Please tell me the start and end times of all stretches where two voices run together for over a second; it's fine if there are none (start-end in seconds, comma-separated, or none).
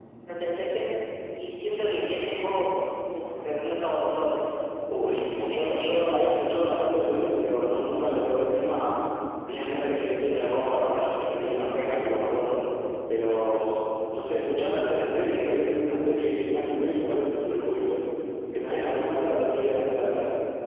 none